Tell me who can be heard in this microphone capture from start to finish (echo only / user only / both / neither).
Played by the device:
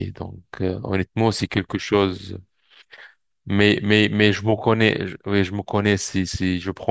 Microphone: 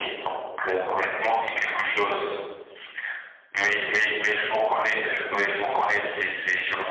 echo only